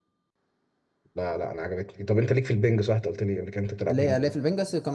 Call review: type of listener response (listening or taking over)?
taking over